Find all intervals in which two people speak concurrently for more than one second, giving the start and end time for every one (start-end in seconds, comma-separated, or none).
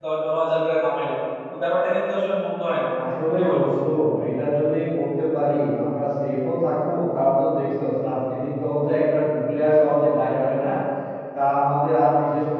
none